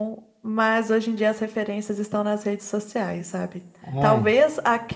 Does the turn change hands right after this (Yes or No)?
No